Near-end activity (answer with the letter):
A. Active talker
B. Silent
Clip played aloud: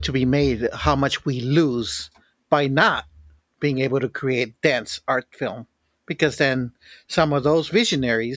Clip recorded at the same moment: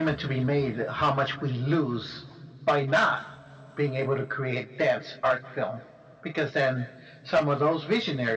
B